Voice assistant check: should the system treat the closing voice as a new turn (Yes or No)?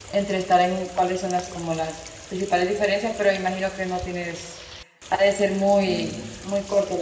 Yes